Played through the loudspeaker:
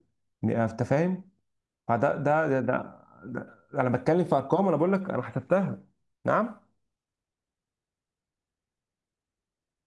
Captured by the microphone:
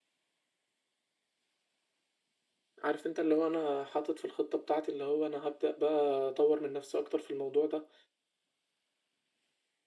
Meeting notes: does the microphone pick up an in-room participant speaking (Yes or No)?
Yes